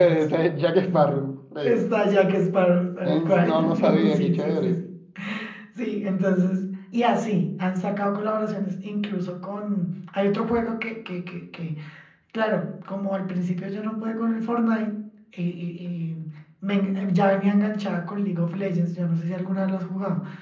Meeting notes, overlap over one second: present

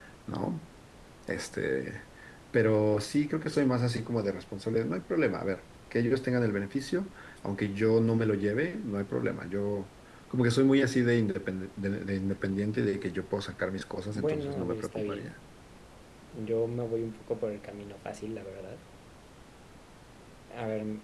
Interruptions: present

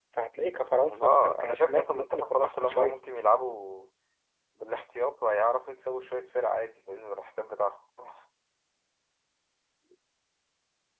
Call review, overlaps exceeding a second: present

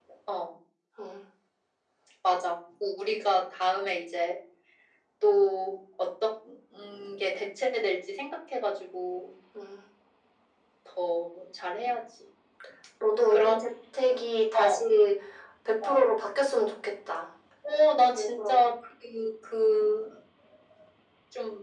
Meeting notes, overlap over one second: none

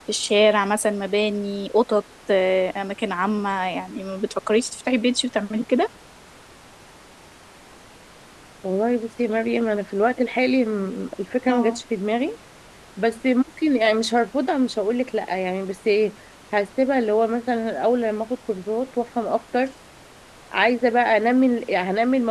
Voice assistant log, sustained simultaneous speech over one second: none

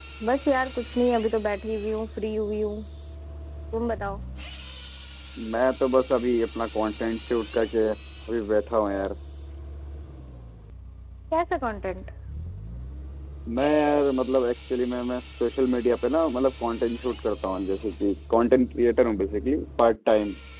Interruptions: none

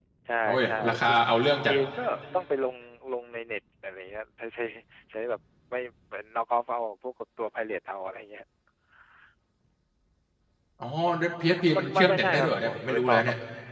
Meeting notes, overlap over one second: present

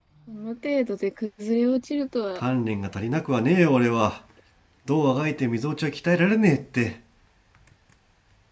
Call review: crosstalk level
none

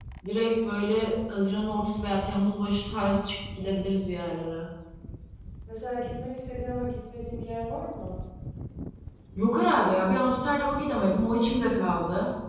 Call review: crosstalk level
none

